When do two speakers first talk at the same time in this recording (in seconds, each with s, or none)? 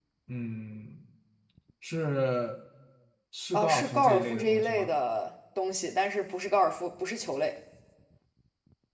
3.5 s